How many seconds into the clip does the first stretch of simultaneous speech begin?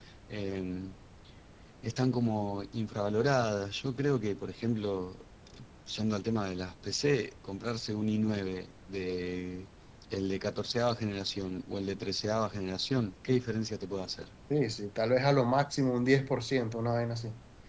none

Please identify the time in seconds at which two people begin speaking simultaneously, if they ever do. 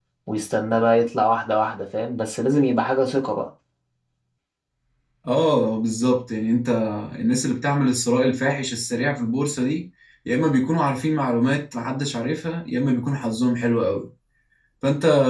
none

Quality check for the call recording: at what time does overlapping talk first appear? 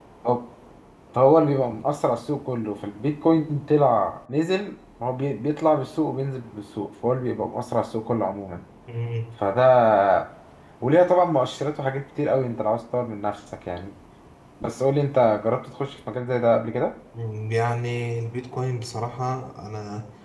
none

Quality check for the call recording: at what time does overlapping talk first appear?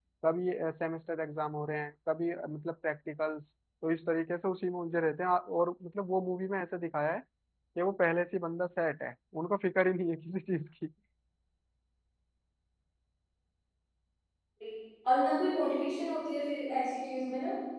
none

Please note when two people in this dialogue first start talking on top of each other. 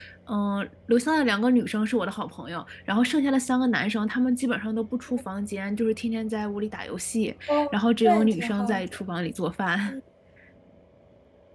7 s

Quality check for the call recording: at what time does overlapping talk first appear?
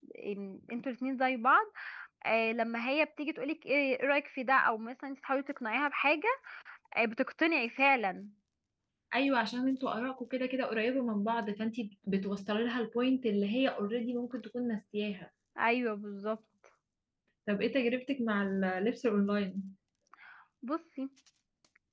none

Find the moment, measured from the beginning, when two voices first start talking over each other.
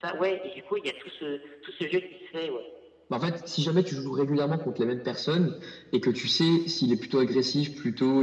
none

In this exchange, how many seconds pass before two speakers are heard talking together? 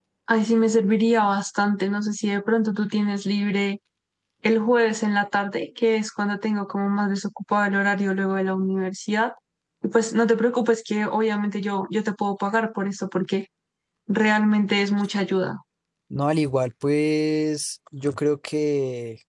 none

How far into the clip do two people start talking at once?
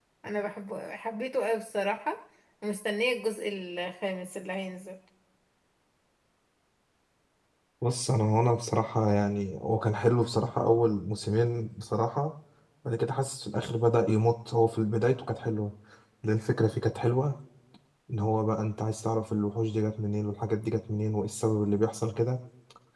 none

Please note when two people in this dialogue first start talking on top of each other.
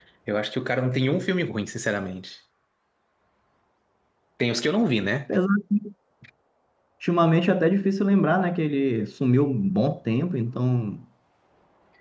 none

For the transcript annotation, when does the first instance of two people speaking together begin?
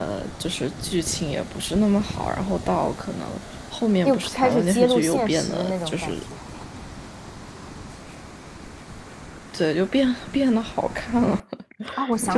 4 s

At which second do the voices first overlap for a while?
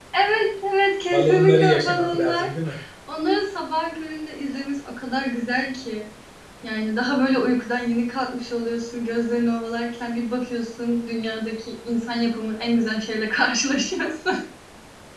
1 s

